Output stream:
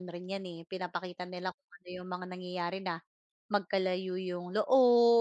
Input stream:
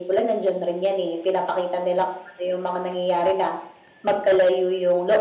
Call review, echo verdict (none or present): present